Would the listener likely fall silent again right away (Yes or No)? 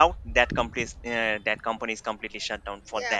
No